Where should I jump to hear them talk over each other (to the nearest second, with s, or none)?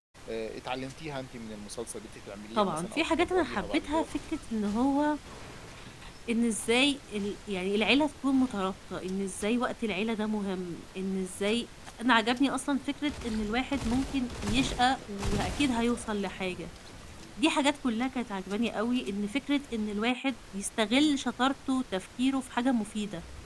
3 s